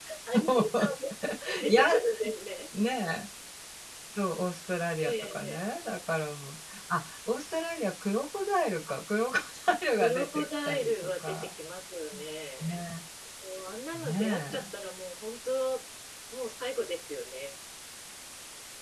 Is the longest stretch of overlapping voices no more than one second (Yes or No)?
No